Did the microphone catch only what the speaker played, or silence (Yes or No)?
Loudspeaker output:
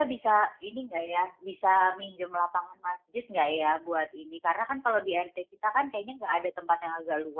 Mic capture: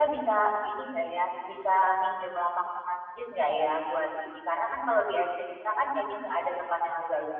Yes